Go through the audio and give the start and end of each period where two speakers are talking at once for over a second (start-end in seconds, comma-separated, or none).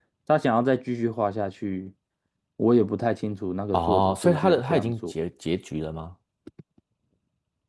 3.7-5.1